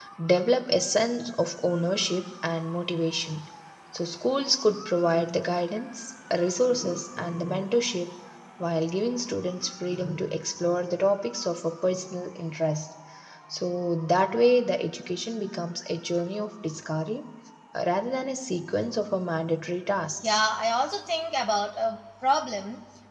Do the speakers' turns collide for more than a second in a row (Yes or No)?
No